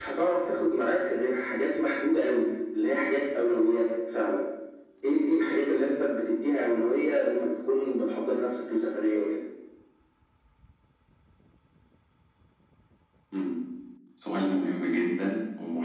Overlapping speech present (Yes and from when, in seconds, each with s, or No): No